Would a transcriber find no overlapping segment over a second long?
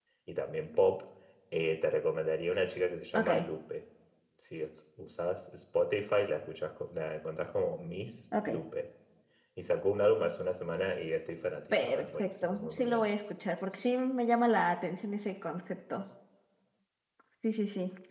No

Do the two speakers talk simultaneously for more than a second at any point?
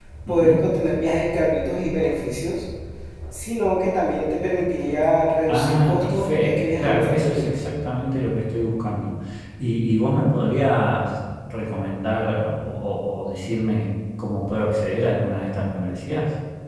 Yes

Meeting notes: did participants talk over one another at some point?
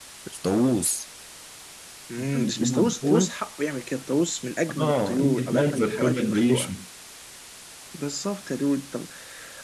Yes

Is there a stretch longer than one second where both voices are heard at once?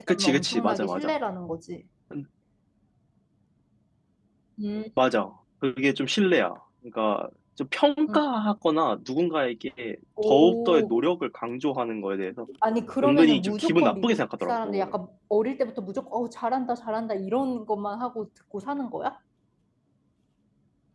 Yes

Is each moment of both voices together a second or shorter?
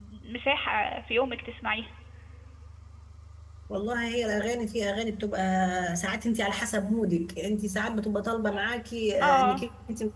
Yes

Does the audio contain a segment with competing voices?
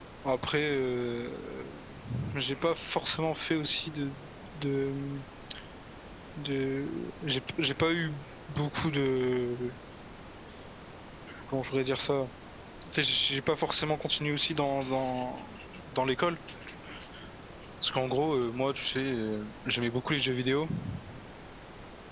No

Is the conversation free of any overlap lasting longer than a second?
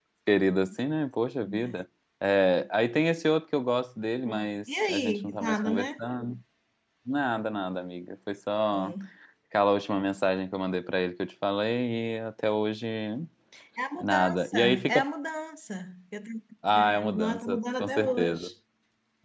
No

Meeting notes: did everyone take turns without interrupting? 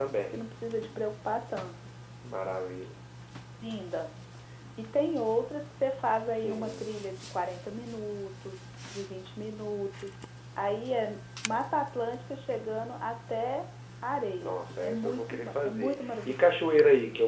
No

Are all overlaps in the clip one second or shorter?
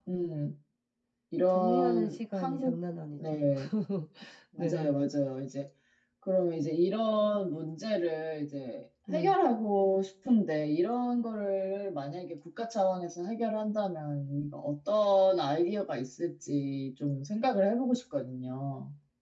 No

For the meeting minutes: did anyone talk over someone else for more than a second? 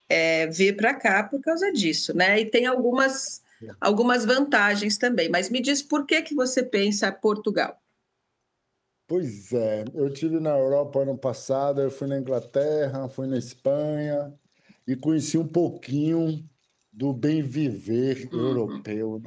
No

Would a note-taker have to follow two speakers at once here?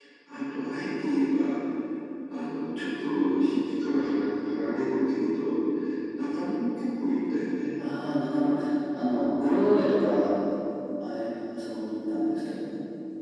No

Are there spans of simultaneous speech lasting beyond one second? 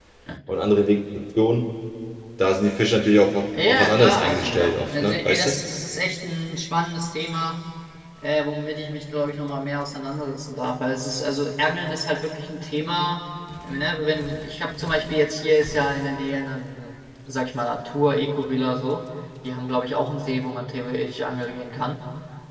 Yes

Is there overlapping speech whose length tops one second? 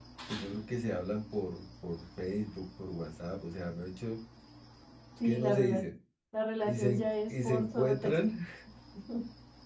Yes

